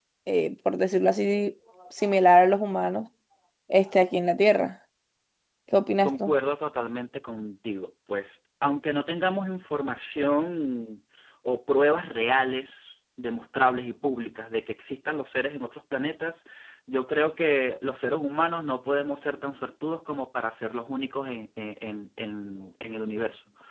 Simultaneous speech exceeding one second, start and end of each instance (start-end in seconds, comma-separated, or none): none